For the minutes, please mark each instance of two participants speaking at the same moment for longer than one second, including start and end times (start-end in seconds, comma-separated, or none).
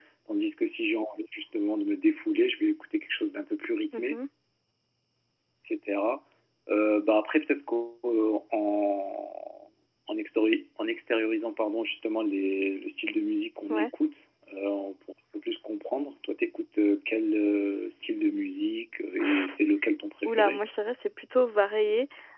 none